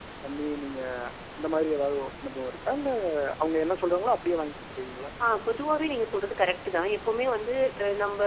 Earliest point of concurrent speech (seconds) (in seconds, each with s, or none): none